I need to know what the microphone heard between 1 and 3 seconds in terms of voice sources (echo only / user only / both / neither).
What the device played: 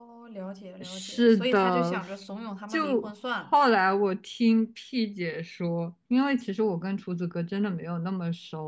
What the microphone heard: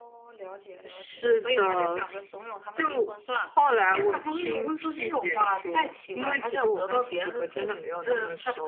echo only